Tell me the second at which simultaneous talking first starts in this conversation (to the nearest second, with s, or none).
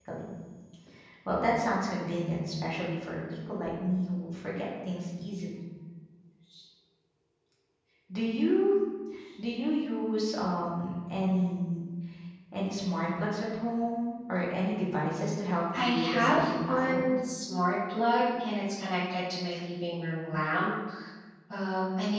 16 s